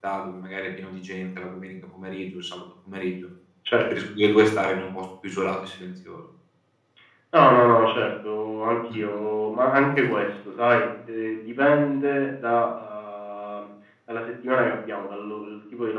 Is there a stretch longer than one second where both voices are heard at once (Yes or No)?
No